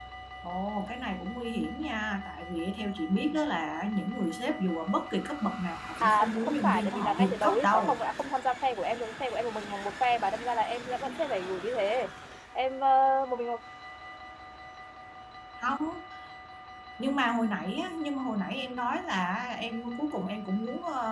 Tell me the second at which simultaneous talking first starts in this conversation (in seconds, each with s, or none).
6.0 s